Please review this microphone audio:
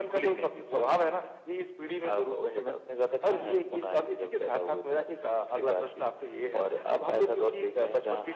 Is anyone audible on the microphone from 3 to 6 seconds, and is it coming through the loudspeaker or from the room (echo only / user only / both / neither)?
echo only